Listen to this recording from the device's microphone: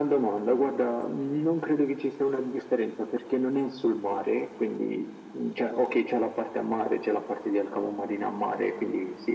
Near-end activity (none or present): none